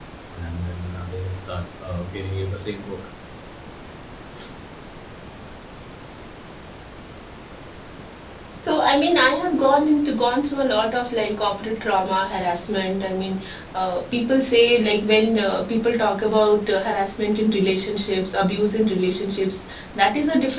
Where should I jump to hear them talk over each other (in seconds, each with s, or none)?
none